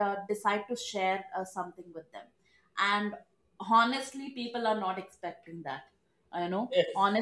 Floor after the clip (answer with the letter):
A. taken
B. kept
B